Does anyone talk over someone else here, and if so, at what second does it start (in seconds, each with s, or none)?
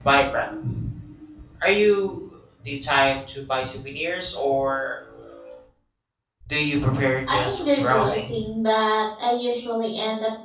7.3 s